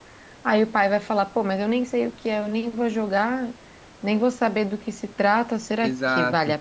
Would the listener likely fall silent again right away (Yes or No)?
No